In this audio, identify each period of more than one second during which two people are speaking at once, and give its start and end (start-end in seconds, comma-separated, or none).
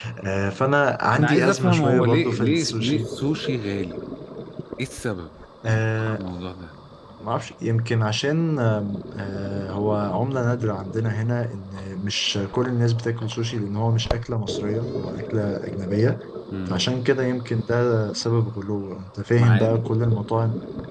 1.1-3.1